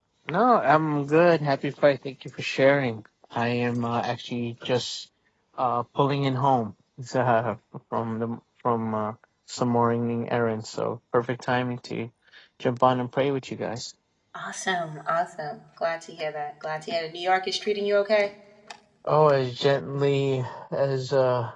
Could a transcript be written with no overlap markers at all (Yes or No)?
Yes